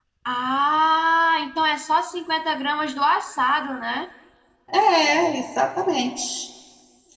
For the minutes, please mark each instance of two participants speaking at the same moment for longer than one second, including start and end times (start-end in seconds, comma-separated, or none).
none